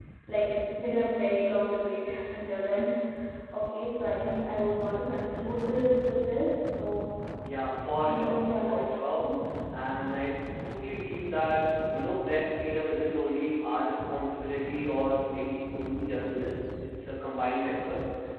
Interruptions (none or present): present